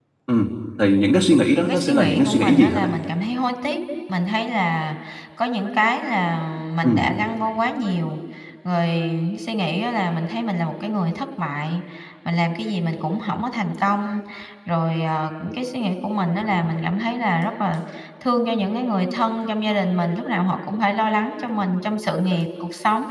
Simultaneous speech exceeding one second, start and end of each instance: 1.6-2.9

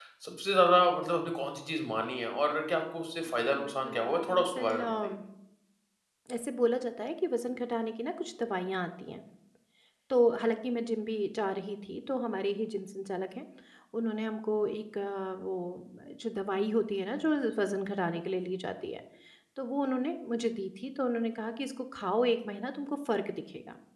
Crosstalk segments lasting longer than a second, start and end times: 3.4-5.1

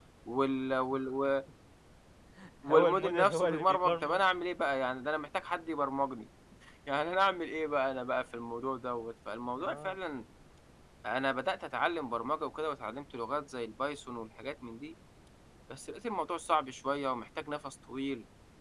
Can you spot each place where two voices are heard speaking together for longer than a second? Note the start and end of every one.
2.7-4.2

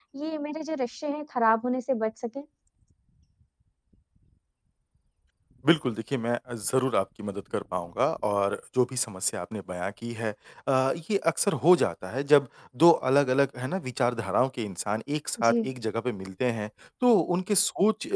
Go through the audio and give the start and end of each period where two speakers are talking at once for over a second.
none

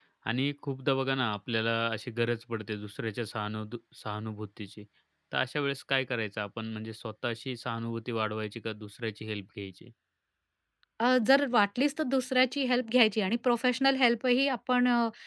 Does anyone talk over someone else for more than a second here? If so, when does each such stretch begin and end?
none

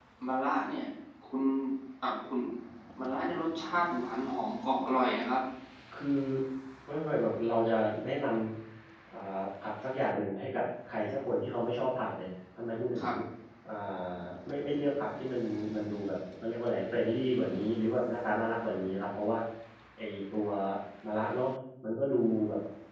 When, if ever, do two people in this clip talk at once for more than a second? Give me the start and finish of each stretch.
none

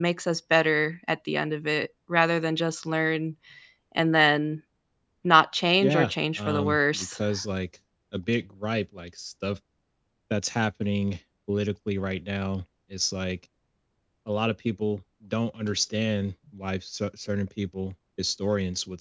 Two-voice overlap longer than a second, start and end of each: 5.8-7.1

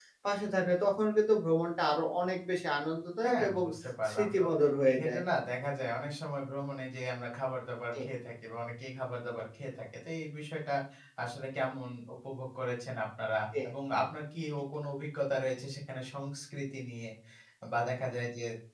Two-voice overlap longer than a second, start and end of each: none

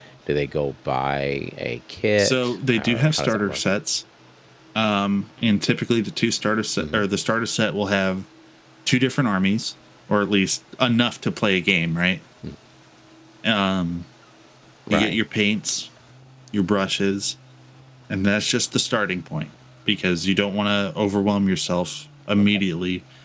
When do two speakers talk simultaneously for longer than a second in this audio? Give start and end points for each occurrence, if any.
2.2-3.6

